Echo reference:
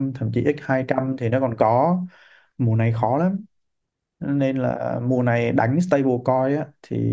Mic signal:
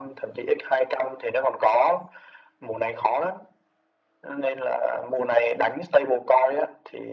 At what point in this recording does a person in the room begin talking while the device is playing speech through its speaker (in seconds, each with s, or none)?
none